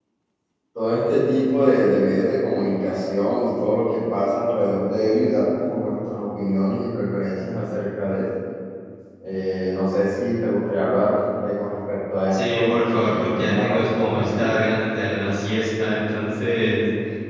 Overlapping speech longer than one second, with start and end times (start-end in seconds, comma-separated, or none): 12.3-14.5